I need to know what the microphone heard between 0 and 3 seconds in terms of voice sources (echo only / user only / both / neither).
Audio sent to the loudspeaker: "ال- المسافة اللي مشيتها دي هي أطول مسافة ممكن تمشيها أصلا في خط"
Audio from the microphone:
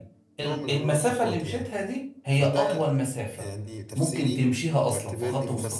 both